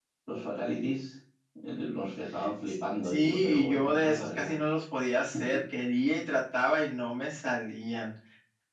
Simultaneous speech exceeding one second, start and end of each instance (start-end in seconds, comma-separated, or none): 2.7-4.6